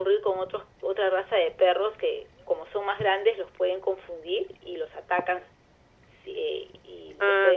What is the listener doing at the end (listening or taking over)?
taking over